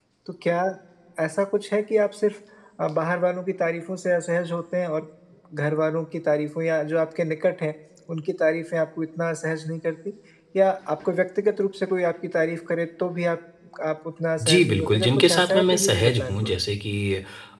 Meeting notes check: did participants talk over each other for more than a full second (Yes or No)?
Yes